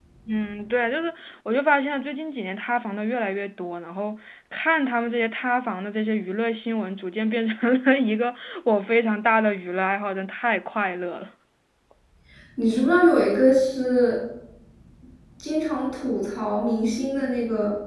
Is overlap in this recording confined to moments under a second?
Yes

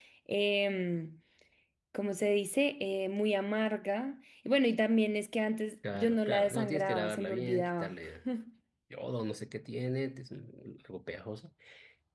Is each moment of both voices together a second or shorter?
No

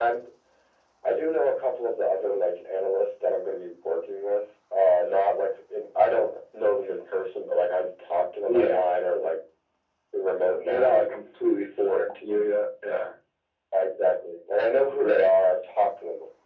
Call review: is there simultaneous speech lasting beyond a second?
No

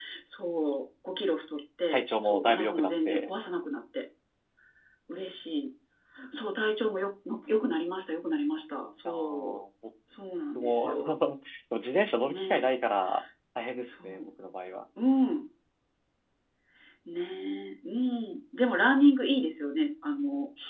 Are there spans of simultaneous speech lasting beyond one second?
Yes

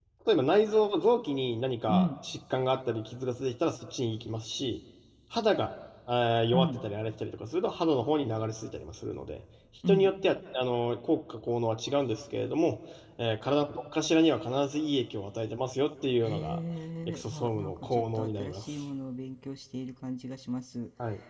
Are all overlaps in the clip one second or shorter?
No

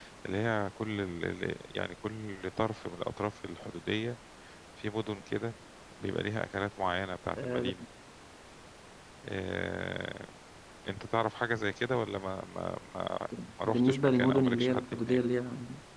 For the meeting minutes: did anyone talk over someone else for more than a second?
Yes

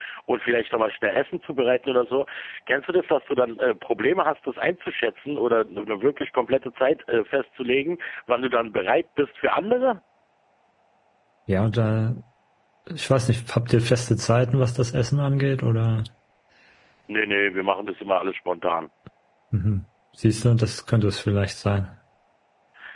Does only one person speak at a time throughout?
Yes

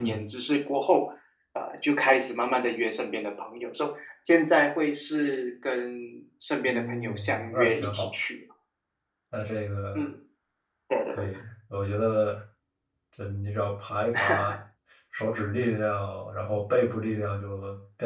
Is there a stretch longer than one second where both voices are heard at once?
Yes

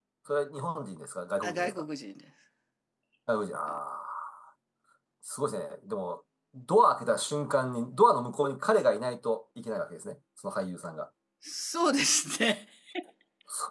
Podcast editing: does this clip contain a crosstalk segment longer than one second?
No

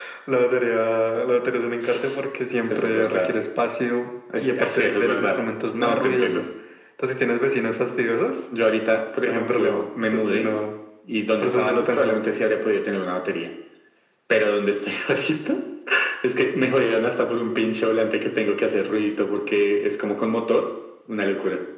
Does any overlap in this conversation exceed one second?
Yes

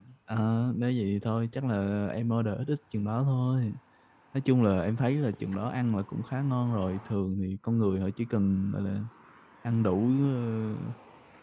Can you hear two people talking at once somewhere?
No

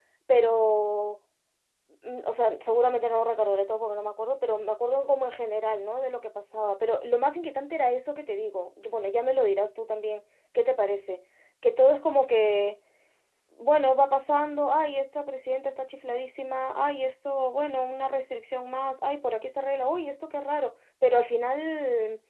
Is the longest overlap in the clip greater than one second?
No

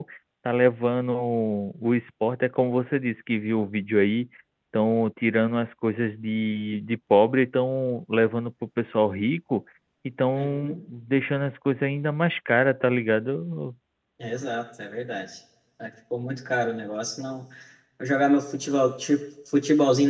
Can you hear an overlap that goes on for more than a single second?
No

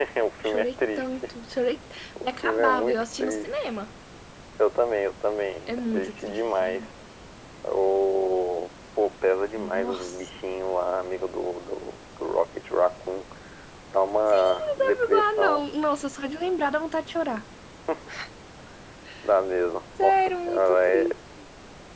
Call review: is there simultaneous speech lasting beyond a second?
Yes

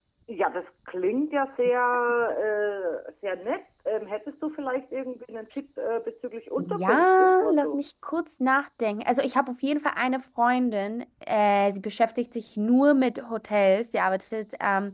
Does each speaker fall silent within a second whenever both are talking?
No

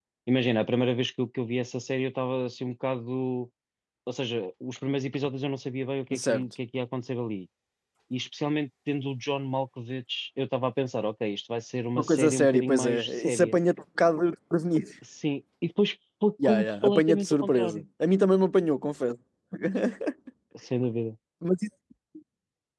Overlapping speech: Yes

